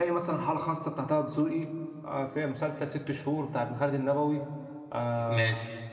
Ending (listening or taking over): listening